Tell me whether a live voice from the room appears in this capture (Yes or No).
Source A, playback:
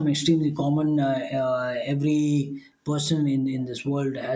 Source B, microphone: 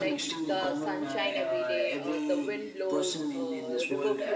Yes